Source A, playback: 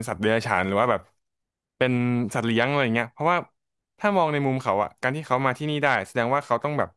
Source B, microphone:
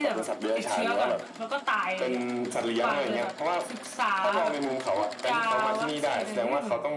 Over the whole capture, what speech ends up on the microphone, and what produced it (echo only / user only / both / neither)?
both